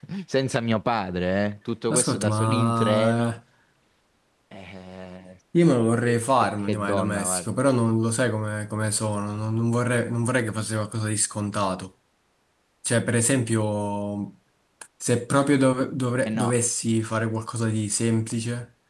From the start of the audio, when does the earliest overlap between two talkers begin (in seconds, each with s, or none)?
1.9 s